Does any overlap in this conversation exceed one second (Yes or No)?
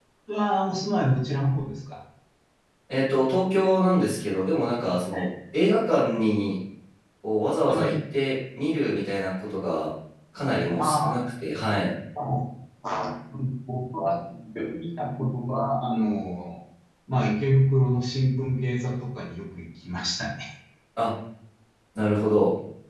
No